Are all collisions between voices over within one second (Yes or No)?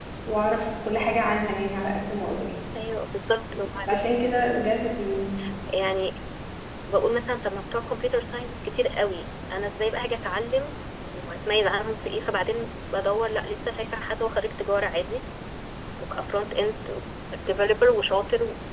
Yes